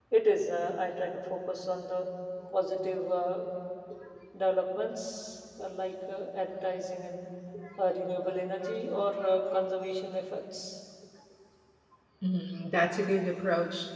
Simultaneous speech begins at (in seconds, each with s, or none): none